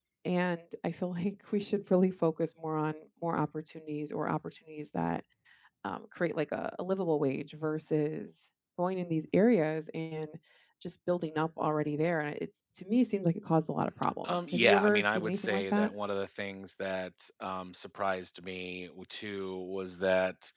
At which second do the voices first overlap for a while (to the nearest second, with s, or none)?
14 s